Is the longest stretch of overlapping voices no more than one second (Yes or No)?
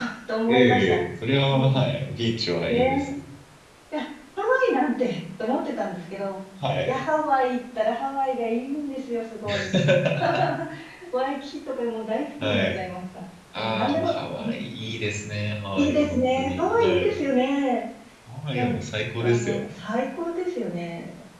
No